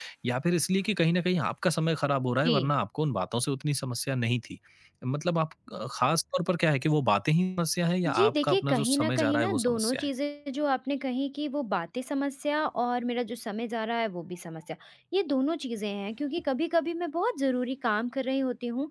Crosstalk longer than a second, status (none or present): present